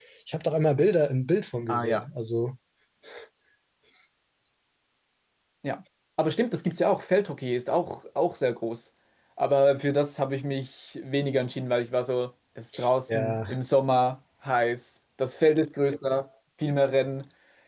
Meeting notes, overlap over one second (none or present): none